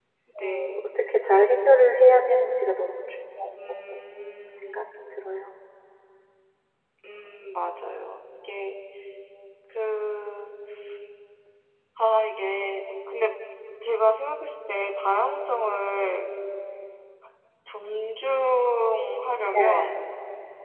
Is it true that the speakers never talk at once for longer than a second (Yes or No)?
Yes